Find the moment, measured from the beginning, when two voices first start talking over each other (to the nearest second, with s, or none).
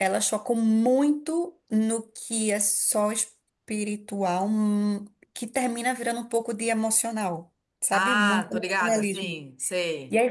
8 s